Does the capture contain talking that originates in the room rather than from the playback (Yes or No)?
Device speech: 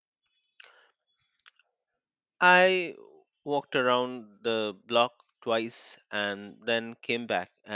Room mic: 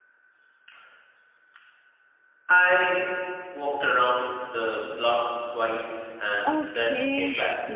Yes